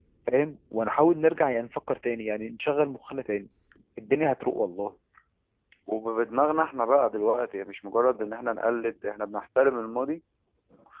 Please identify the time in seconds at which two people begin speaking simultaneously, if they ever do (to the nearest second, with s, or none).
none